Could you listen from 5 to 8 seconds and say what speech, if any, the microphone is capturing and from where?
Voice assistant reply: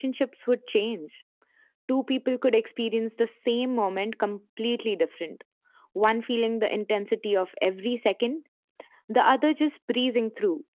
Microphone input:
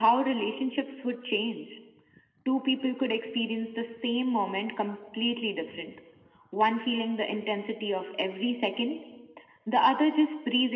echo only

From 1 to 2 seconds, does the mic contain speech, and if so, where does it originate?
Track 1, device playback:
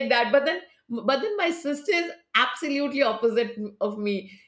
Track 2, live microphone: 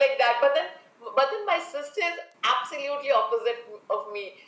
echo only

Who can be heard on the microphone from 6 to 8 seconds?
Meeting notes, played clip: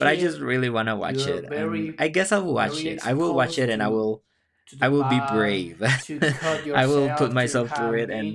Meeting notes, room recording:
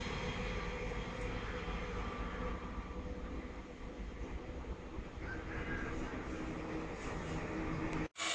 neither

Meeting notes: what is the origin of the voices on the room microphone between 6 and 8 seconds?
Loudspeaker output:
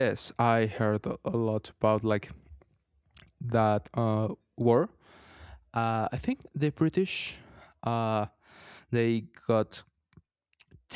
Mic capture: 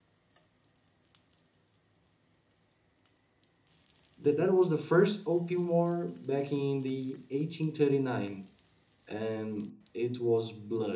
user only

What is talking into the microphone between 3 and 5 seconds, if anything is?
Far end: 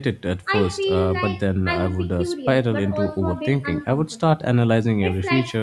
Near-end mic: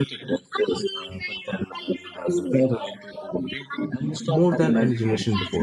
both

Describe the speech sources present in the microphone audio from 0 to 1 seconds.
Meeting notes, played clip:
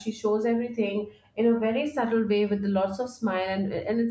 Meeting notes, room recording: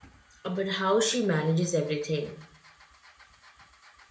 user only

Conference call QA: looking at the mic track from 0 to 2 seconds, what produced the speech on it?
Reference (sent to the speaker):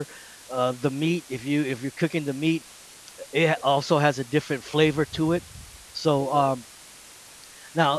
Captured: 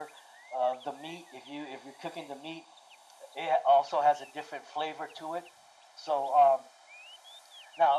echo only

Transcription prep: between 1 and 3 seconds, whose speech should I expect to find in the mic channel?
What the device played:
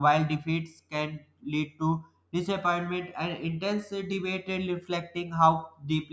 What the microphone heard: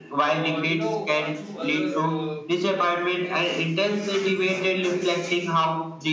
both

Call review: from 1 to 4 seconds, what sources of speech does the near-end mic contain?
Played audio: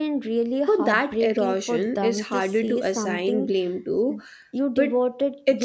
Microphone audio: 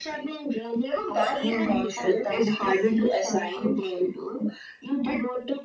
both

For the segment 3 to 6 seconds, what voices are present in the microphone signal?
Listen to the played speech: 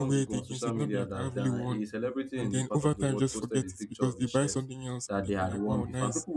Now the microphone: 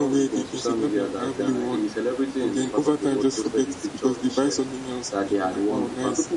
echo only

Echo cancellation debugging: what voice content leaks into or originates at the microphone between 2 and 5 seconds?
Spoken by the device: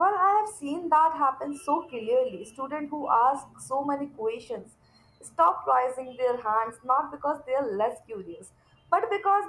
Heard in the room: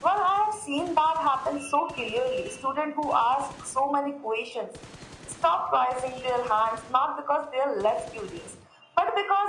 echo only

